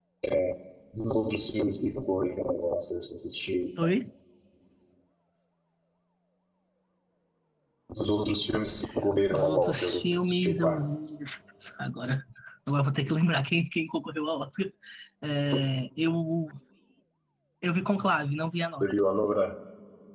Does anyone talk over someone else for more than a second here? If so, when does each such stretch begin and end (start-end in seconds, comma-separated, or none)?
9.3-10.8